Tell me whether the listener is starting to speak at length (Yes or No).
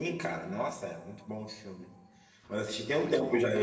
No